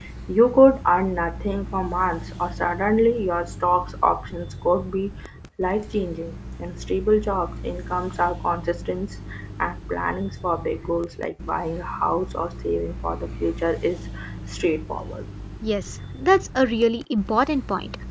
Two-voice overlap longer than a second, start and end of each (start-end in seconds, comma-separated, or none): none